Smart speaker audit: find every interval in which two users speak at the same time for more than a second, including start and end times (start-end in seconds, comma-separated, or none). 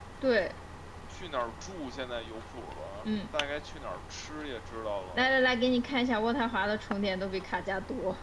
none